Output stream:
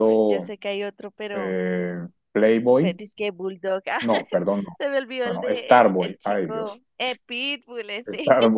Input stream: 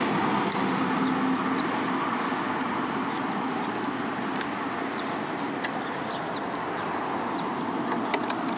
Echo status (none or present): none